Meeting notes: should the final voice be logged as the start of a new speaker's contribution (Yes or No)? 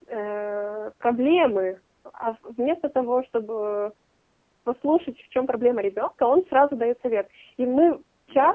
No